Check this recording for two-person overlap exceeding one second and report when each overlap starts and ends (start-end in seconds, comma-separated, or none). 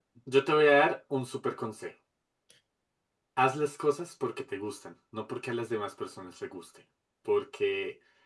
none